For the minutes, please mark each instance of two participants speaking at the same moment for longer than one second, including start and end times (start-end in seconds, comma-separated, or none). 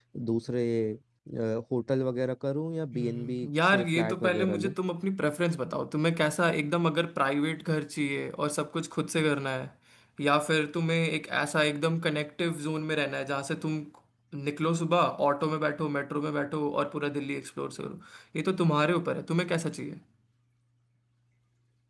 2.9-4.8